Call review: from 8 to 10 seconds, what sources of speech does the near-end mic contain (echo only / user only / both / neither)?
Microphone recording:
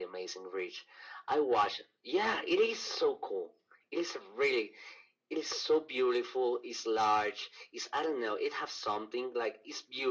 echo only